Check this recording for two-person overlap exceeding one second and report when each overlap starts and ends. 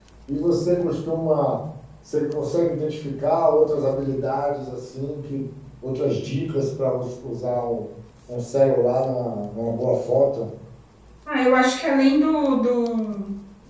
none

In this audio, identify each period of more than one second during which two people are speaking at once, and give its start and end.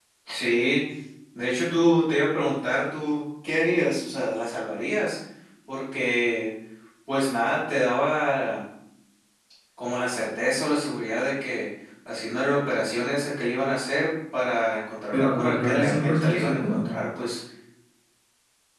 15.1-16.9

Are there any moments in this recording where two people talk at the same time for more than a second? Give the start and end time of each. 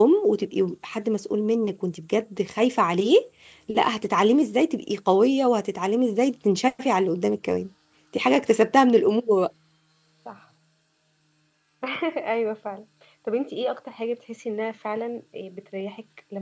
none

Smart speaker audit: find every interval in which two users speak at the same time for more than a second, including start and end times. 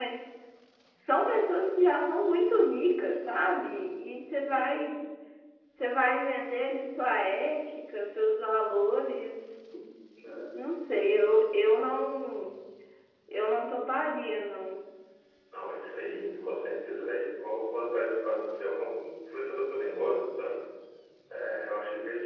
none

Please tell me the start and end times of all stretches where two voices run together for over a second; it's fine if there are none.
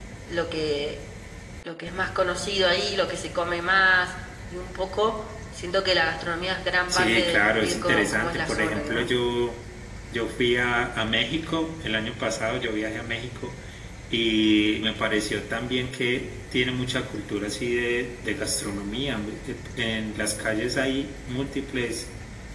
6.9-9.1

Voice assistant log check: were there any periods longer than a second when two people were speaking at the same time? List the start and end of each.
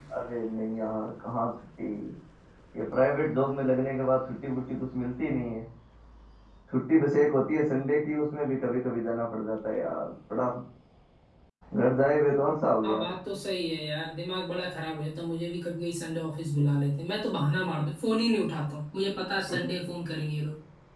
none

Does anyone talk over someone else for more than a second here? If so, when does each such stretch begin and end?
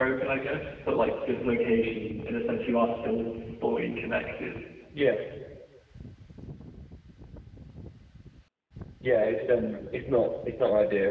none

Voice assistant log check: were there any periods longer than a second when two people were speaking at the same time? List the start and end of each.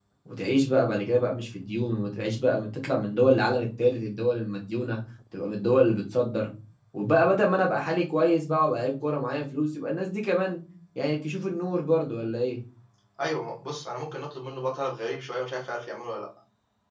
none

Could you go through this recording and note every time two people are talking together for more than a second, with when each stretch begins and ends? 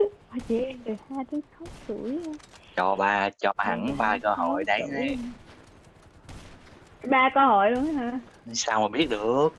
3.7-5.1

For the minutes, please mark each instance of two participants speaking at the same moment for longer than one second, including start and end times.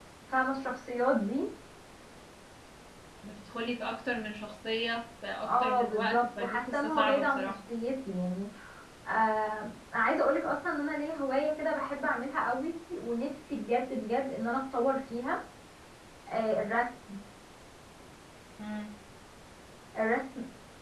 5.5-7.4

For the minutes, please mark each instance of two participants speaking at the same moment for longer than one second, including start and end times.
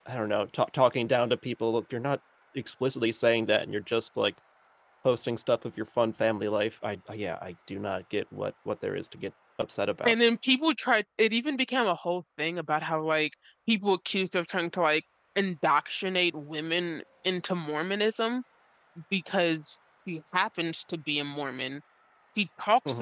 none

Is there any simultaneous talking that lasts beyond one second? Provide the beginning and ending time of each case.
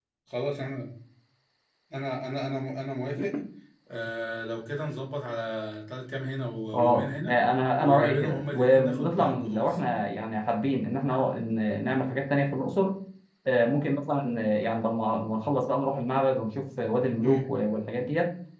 7.8-9.8

